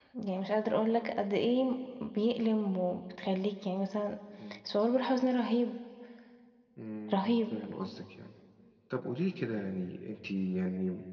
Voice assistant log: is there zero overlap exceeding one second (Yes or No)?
Yes